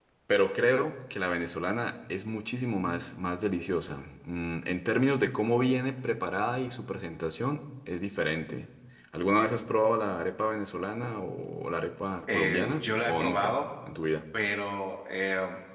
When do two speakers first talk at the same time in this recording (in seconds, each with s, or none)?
12.3 s